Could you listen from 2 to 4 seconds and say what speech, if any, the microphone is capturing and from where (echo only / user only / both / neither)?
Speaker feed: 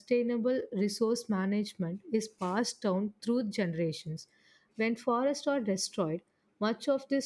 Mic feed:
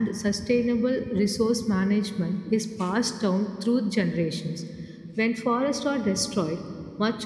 echo only